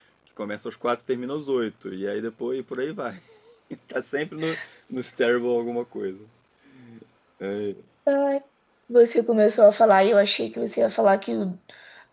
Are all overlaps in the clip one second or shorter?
Yes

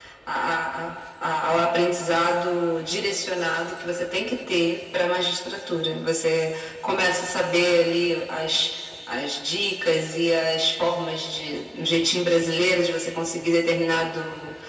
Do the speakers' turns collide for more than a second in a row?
No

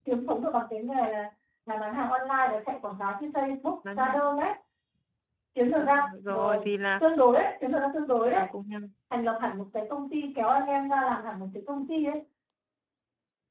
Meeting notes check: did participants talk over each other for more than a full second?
Yes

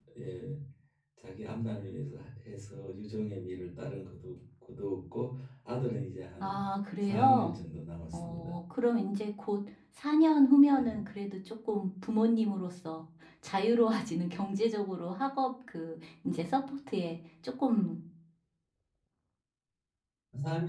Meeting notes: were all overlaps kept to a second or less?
Yes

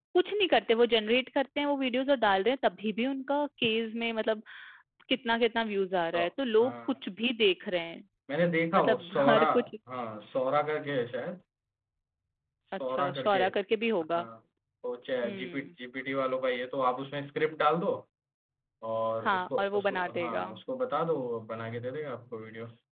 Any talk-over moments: Yes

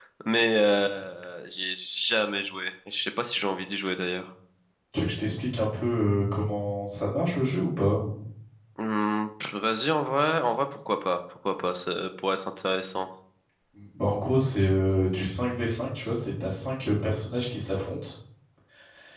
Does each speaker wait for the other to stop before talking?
Yes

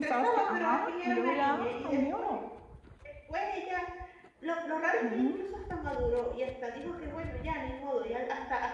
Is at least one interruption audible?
Yes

